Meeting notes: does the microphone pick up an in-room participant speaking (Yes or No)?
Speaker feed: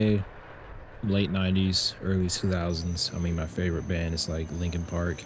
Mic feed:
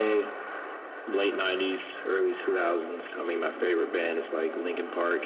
No